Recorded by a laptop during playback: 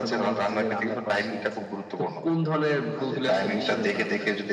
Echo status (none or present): present